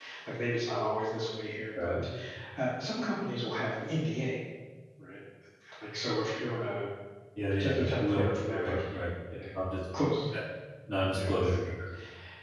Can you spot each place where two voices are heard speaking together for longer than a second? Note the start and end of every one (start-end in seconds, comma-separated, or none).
7.6-8.8